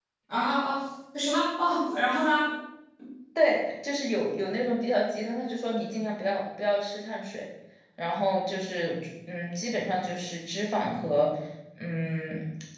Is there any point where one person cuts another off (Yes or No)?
No